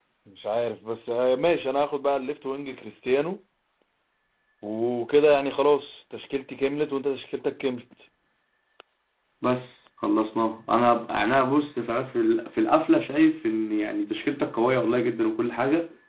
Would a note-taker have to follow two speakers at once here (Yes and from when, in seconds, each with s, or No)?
No